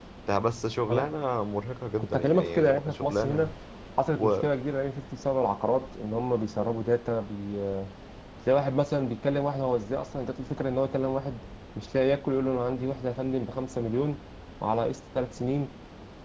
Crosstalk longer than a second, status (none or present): present